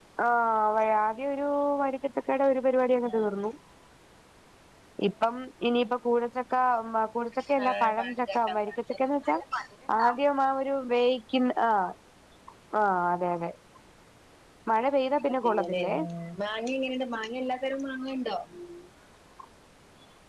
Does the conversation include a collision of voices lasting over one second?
Yes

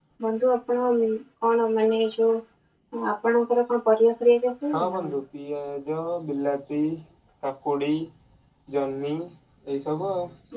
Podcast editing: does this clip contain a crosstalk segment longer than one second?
No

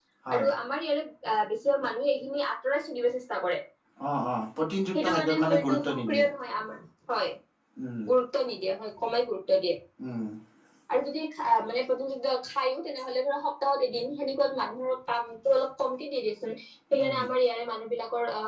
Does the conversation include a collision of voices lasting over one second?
Yes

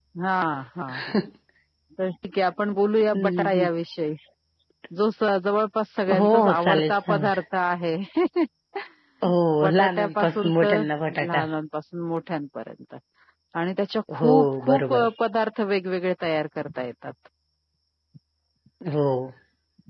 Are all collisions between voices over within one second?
No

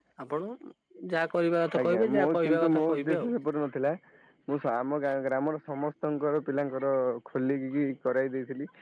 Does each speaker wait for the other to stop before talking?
No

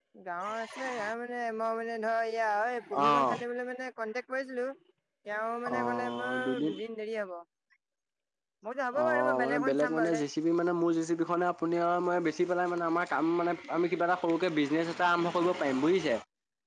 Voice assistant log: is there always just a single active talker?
No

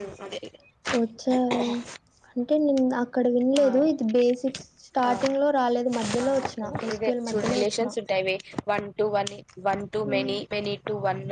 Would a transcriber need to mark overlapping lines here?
Yes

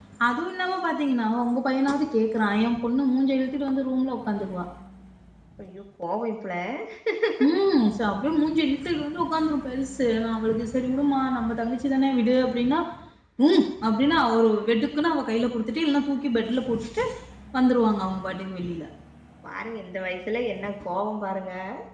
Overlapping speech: No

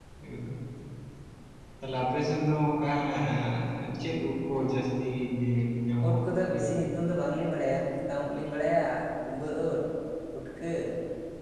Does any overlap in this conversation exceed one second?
No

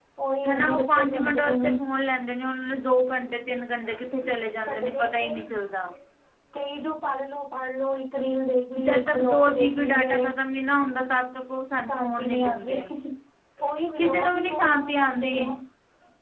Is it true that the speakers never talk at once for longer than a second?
No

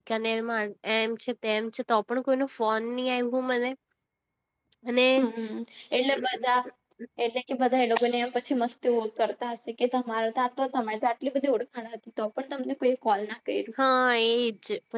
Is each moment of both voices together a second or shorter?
Yes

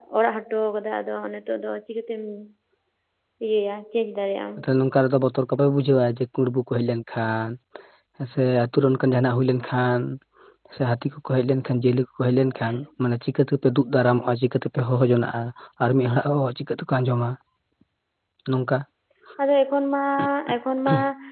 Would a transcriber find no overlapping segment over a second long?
Yes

